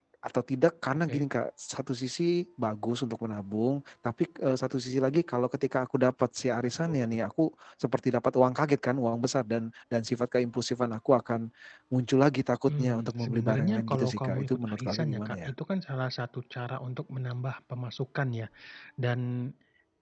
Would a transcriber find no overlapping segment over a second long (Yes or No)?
No